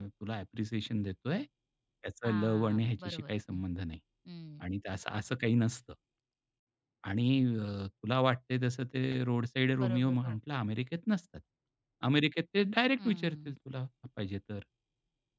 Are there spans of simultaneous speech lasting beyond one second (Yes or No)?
Yes